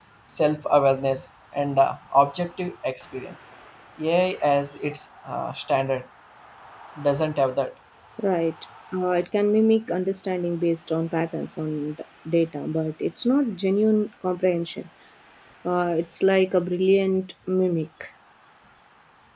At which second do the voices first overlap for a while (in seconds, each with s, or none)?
none